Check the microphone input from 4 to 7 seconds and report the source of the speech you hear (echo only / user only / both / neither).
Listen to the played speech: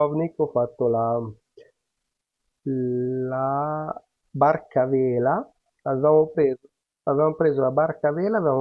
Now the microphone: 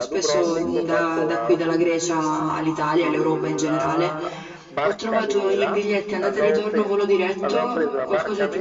both